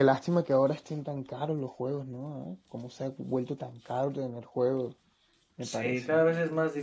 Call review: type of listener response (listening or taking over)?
taking over